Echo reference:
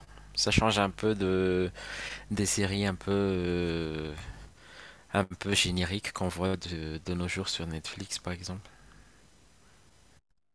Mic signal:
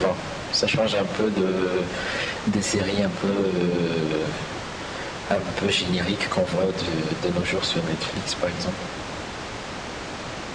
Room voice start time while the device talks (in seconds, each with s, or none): none